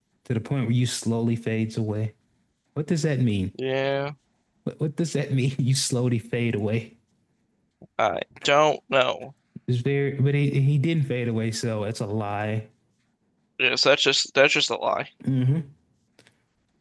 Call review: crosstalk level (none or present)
none